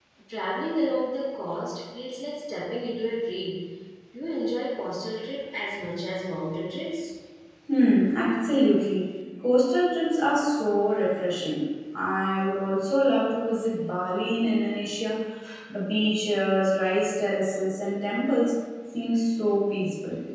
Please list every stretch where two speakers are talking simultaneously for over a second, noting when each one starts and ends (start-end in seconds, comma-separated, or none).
none